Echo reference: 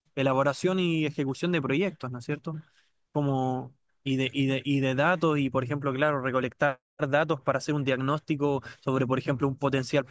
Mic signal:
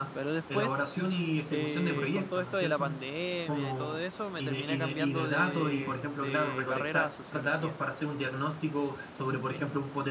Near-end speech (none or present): present